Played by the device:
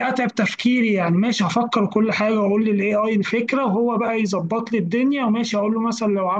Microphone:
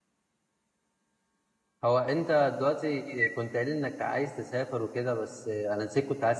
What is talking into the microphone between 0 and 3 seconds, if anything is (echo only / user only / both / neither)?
user only